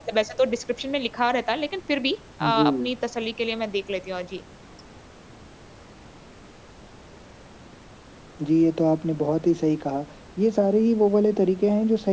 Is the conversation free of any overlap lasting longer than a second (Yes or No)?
Yes